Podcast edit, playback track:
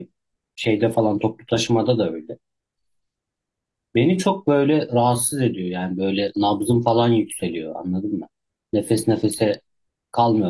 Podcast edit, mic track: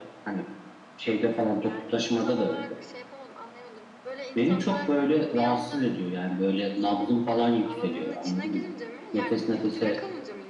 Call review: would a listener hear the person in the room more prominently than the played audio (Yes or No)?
No